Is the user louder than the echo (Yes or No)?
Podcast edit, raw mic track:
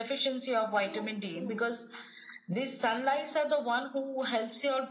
No